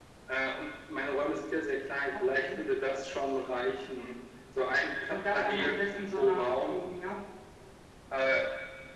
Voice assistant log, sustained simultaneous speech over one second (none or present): present